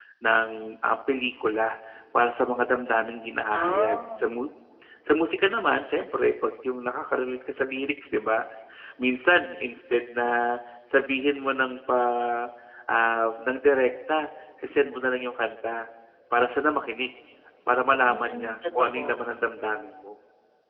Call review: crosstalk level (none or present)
present